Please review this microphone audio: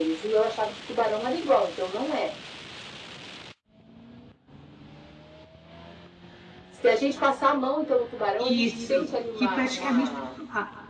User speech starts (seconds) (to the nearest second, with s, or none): 8 s